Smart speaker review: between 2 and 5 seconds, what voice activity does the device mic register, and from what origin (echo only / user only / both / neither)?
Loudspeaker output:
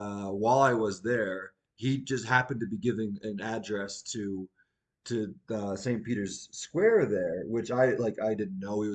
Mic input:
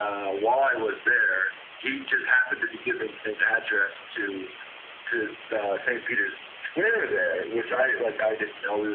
echo only